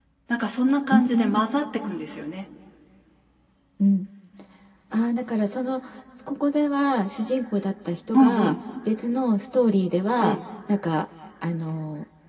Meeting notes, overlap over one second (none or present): none